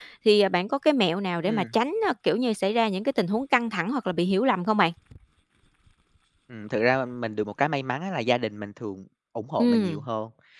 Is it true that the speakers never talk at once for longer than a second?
Yes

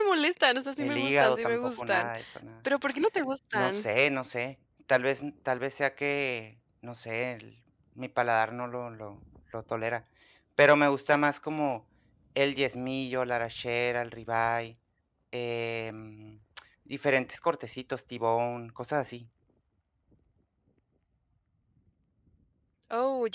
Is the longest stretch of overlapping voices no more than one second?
No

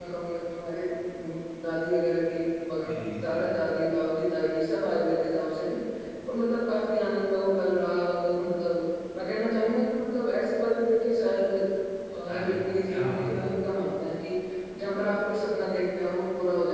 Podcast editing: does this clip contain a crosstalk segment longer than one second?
Yes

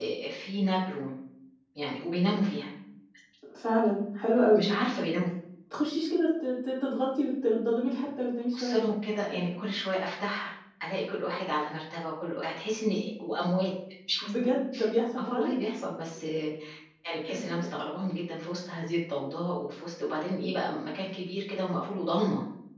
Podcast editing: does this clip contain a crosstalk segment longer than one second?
No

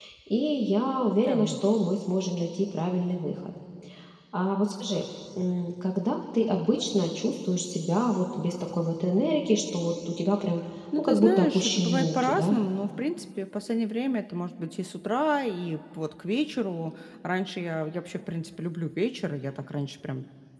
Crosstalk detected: Yes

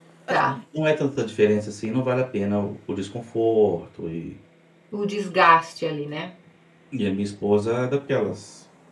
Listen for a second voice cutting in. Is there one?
No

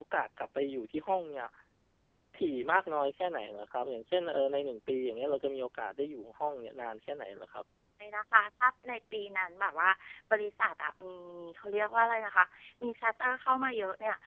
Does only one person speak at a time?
Yes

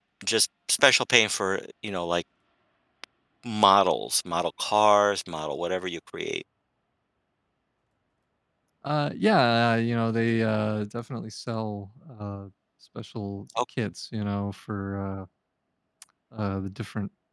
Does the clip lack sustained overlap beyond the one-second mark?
Yes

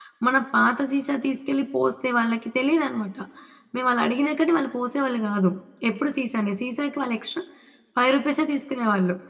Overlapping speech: No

